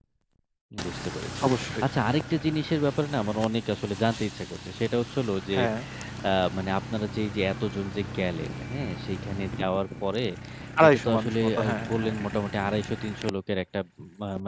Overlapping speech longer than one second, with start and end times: 10.8-12.2

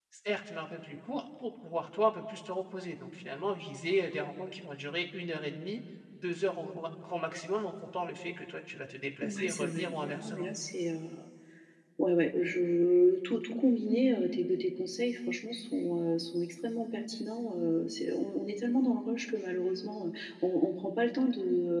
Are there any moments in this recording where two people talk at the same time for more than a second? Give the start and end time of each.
9.2-10.5

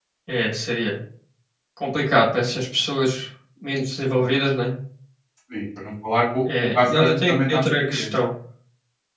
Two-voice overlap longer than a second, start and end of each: 6.6-8.1

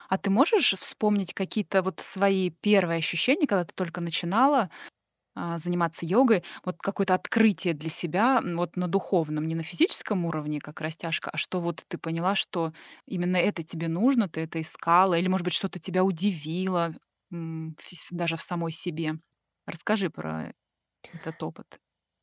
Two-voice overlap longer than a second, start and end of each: none

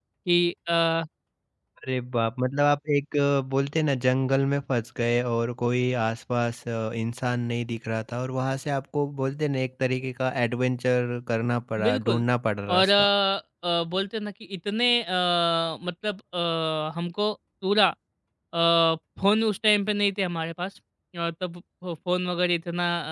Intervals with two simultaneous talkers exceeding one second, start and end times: none

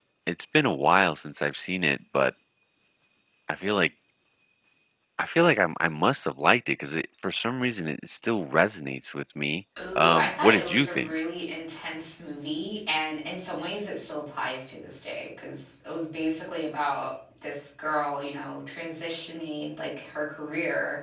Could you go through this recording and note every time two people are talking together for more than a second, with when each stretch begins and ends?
9.9-11.2

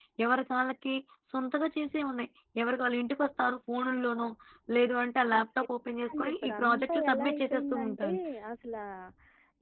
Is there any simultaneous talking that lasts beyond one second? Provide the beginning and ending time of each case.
6.2-8.1

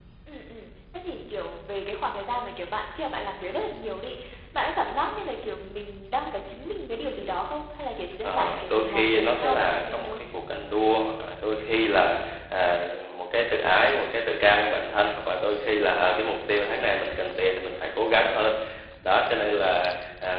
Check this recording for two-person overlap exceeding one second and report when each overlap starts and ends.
8.2-10.2

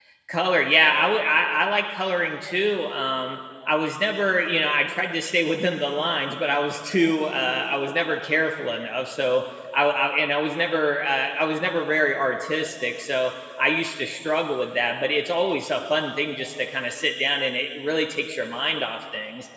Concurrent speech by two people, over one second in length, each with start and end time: none

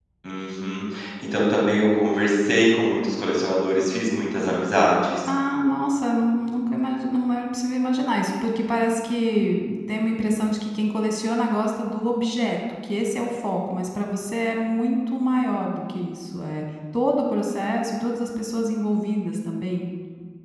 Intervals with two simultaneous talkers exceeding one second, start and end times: none

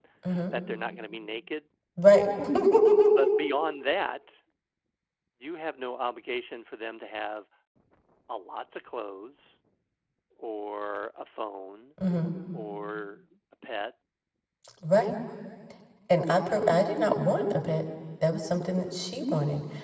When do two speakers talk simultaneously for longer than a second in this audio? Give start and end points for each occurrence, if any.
none

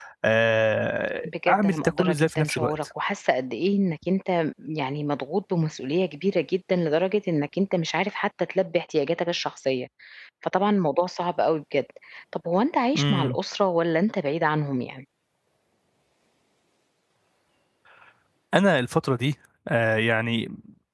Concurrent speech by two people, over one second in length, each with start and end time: 1.2-2.7

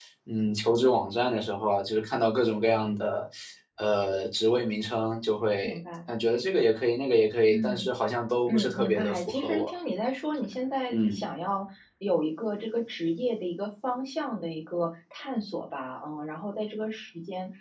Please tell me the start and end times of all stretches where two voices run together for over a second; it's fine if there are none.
8.5-9.7

